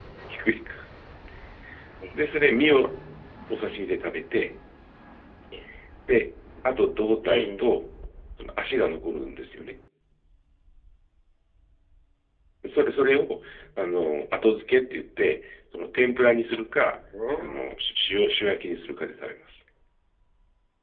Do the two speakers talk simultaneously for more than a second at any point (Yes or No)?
No